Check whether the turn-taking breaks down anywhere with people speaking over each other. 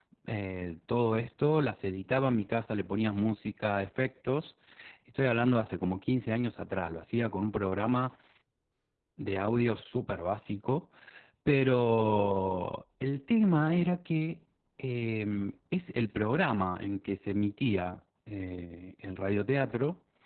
No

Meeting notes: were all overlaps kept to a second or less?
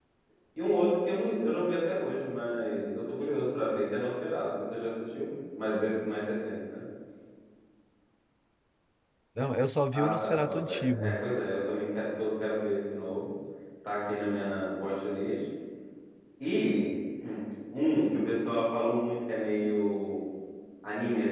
No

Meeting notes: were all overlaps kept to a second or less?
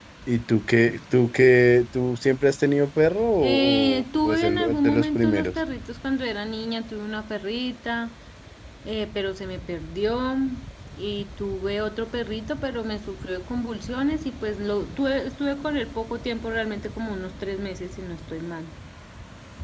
No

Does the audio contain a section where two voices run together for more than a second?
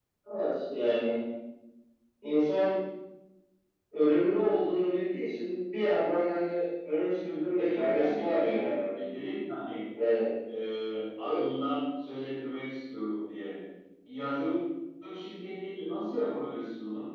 Yes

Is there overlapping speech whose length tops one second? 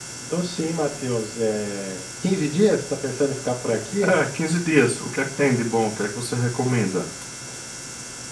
No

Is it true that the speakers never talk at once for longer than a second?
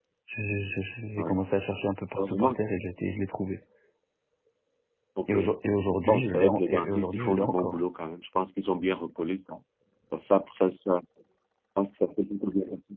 No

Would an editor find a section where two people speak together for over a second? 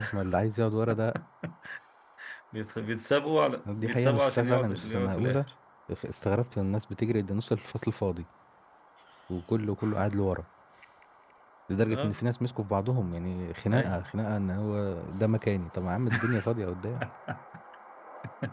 Yes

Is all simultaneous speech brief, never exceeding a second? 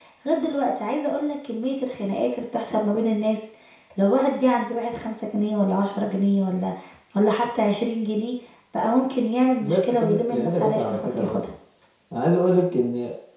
No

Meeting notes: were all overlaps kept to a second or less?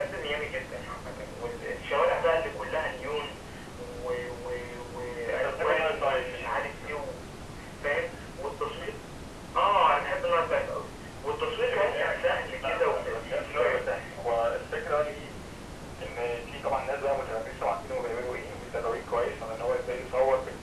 No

